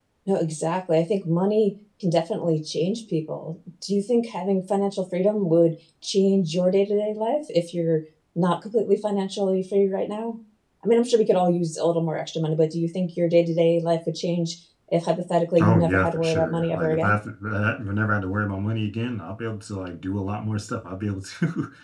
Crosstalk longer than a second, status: present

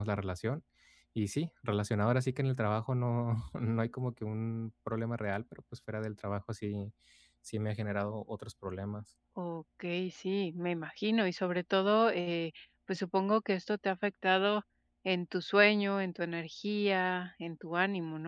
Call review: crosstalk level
none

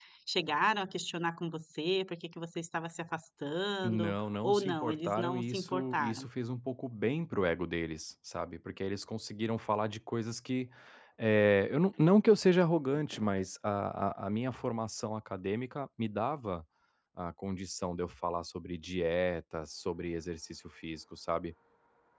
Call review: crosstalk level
present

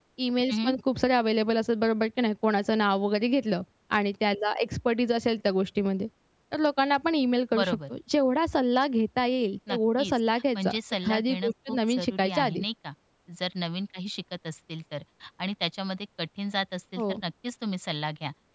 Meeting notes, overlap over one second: present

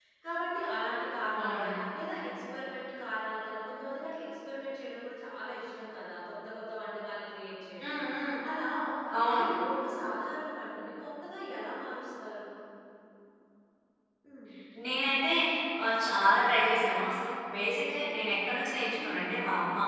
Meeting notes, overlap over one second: none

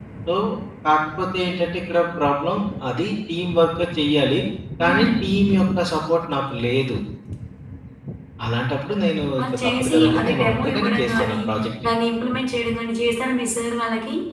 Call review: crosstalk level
present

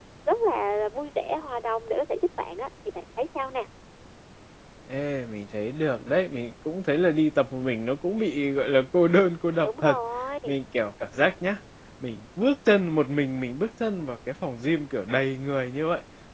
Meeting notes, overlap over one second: none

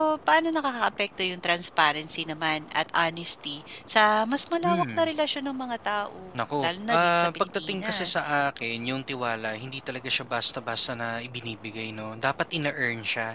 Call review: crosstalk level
present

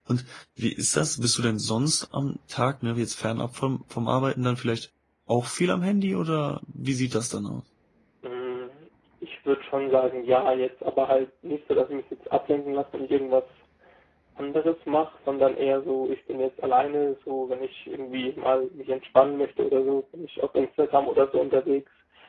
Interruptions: none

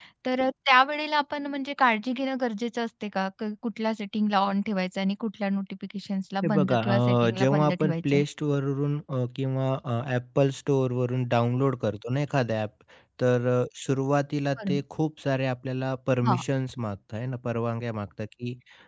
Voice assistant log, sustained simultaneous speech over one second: present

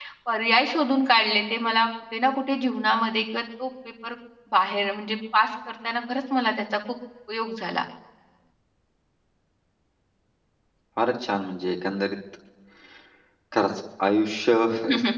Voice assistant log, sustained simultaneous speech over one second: none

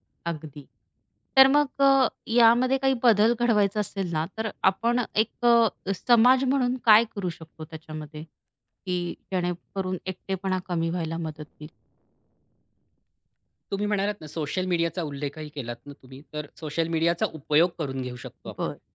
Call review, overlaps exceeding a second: none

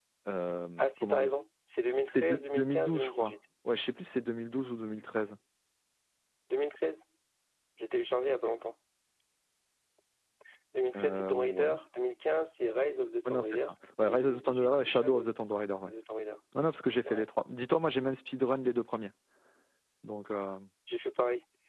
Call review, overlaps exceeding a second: present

